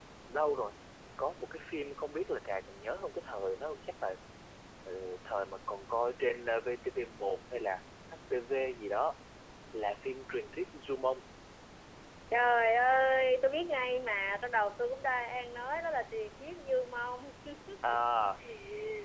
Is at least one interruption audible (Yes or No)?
No